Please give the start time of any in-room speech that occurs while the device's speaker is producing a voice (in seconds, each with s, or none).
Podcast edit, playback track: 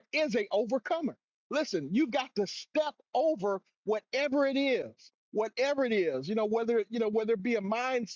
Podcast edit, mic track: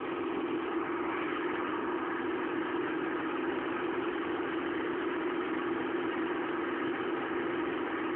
none